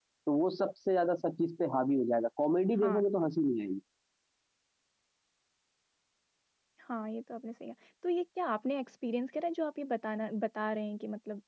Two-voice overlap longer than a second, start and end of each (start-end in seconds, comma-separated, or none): none